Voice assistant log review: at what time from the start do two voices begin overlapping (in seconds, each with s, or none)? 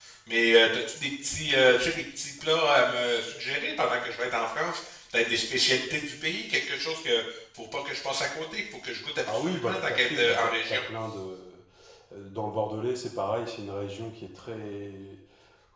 9.2 s